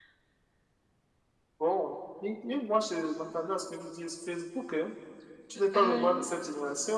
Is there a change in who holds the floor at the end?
No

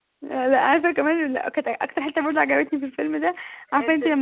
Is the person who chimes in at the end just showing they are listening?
Yes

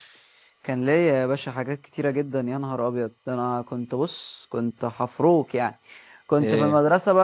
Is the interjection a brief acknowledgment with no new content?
Yes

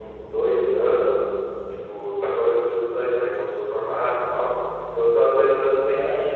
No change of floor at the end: Yes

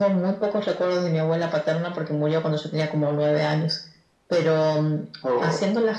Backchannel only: Yes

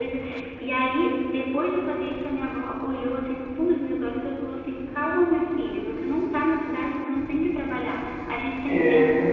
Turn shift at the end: No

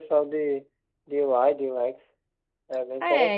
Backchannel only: No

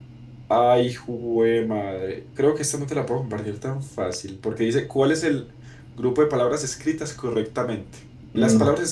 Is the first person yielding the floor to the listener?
No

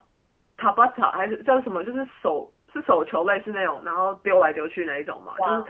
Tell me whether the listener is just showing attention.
Yes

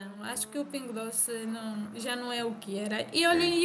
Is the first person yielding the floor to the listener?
No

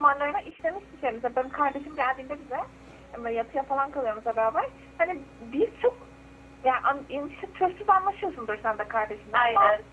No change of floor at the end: Yes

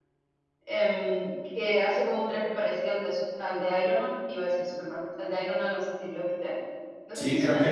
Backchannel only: No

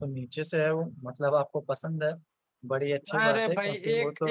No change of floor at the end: No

